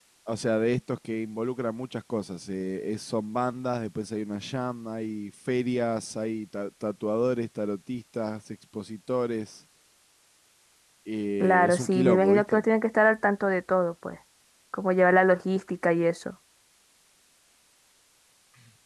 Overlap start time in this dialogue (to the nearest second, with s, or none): 11 s